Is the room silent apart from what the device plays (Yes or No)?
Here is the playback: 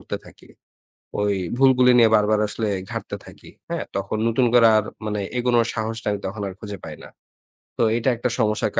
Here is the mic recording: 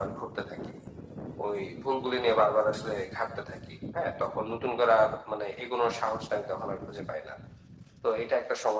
Yes